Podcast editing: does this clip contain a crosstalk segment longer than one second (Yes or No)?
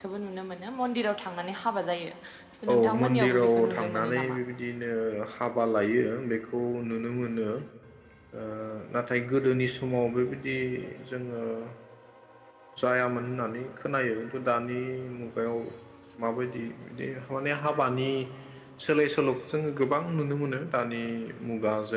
Yes